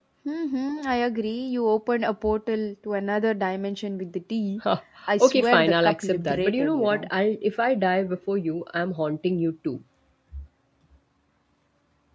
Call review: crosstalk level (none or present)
present